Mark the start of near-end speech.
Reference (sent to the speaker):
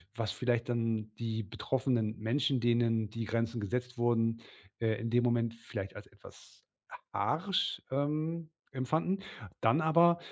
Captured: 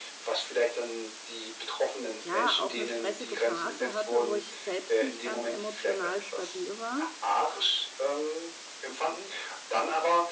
2.2 s

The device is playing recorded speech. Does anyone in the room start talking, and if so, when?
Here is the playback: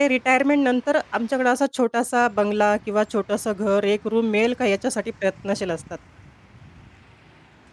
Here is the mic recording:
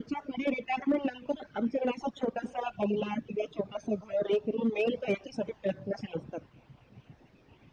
none

